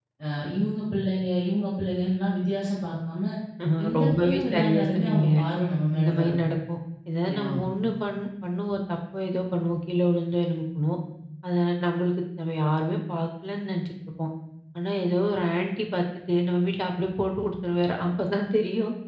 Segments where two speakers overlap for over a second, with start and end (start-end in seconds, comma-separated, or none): 3.9-5.2